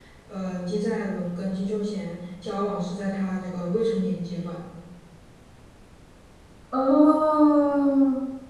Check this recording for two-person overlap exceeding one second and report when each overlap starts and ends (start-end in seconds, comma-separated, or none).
none